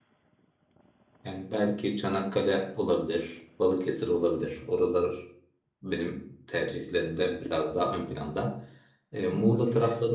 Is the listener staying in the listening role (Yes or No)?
Yes